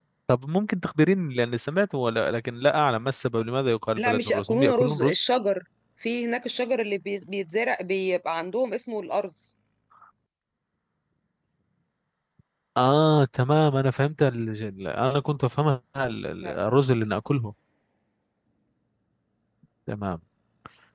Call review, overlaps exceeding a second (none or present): present